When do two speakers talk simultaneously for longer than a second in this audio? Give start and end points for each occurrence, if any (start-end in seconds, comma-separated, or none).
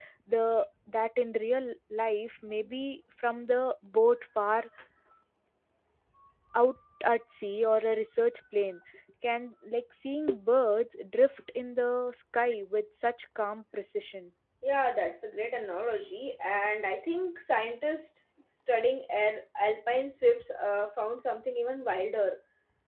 none